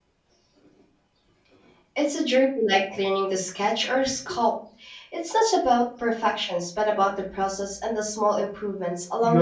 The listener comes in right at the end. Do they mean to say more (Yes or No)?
Yes